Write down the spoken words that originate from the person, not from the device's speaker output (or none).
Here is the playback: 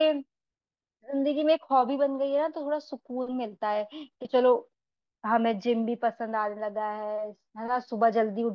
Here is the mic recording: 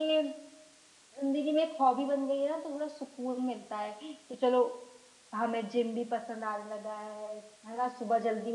none